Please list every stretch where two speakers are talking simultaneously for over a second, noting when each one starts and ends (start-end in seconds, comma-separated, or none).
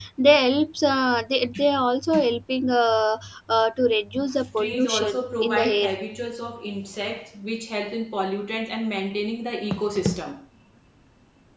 4.6-5.9